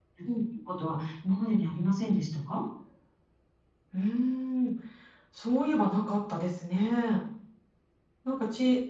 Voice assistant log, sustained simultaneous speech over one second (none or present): none